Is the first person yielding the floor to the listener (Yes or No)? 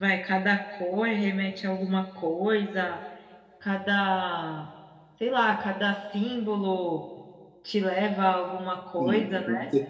Yes